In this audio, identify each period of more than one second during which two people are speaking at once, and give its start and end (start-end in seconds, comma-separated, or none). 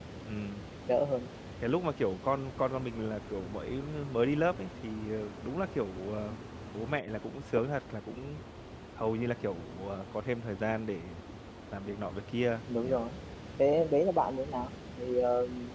none